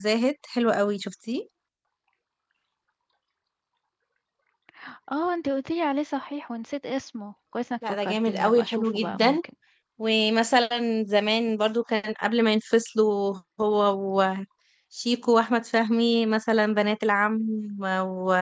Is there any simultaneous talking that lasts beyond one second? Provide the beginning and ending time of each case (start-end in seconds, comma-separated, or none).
7.9-9.4